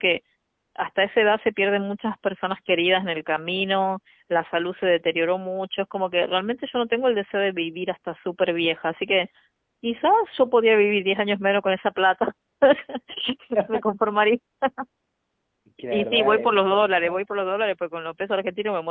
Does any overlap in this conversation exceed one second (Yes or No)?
Yes